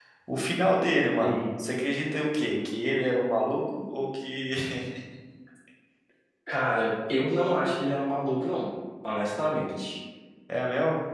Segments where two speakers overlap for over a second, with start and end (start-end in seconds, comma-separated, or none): none